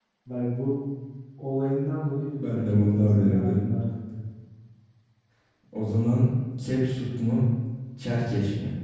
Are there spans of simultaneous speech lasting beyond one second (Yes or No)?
Yes